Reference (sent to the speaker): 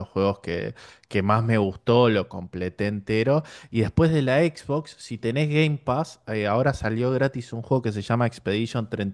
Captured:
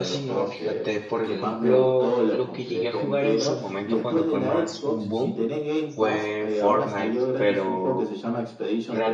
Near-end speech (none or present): present